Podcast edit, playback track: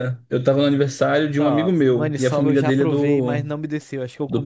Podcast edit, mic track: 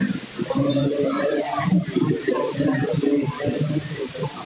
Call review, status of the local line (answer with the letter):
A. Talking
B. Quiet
B